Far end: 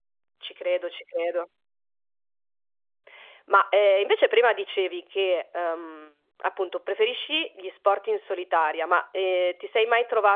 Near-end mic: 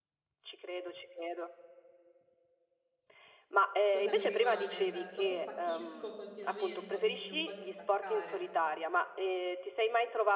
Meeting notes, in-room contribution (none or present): present